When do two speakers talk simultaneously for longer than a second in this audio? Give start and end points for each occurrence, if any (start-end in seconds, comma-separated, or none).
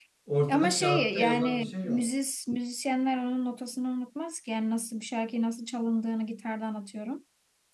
0.5-2.0